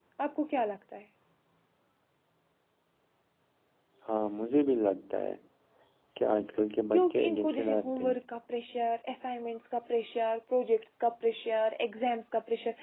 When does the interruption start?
6.9 s

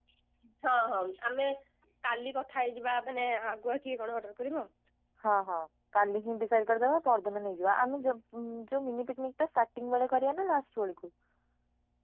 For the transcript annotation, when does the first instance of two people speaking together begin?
none

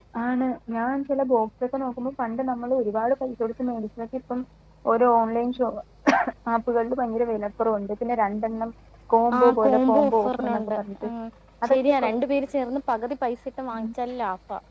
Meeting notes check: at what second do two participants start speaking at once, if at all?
9.4 s

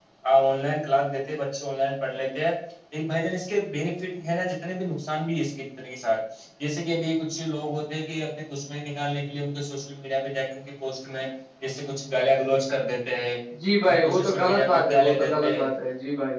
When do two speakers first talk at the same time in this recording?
13.8 s

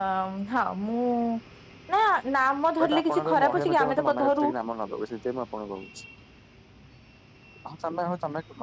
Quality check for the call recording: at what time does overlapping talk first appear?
2.8 s

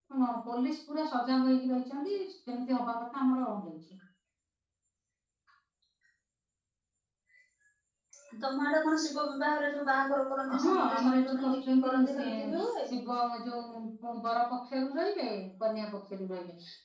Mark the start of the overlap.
10.5 s

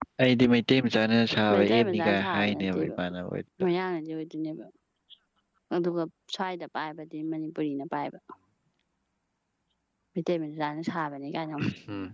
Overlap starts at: 1.5 s

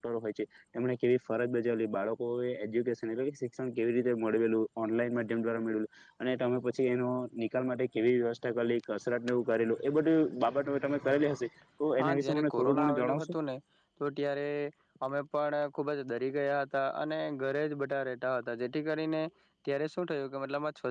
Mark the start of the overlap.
12.0 s

